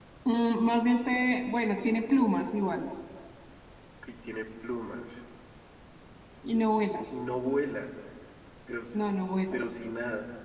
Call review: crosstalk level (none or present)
none